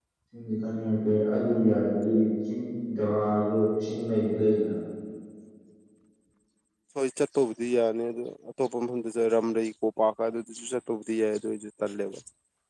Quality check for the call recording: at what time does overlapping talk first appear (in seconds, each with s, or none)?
none